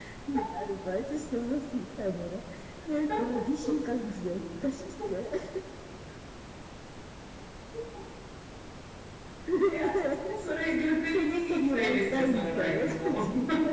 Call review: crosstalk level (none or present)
present